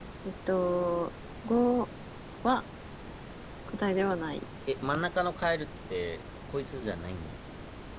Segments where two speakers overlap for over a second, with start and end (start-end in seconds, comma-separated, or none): none